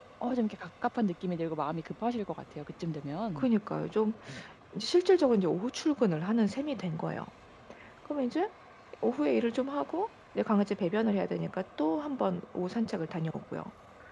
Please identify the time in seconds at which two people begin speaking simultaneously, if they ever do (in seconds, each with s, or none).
none